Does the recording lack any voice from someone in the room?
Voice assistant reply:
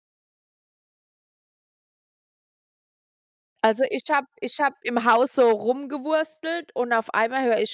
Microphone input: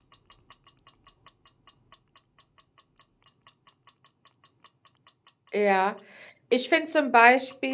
No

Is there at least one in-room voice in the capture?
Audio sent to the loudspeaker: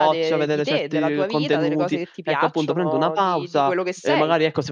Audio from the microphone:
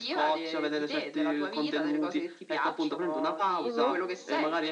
Yes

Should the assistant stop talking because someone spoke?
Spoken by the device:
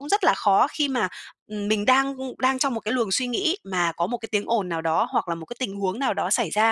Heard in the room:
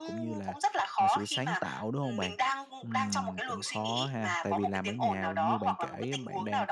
Yes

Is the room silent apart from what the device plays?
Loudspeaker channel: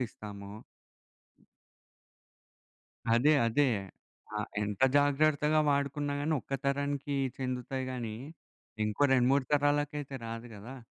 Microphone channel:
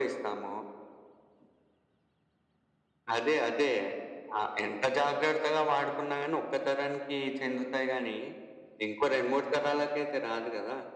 Yes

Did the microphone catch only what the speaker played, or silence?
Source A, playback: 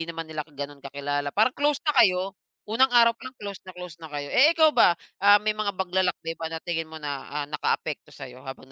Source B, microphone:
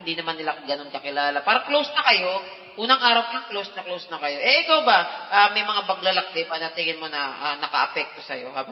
Yes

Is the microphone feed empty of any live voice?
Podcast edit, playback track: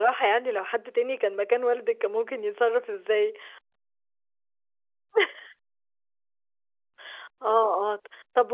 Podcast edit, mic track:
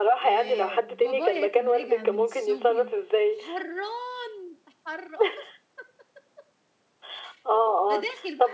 No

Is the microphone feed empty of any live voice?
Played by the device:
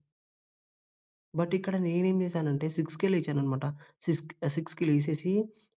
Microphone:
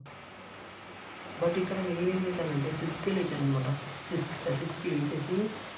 Yes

